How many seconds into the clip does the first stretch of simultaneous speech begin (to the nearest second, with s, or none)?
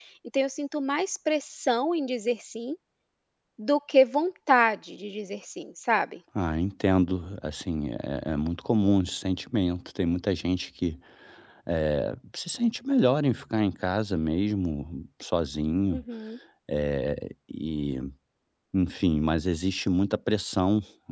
none